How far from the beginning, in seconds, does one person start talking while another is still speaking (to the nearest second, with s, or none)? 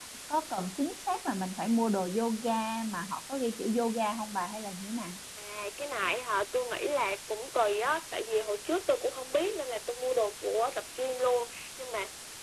none